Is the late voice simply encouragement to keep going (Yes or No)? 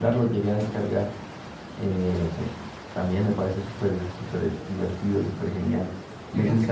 Yes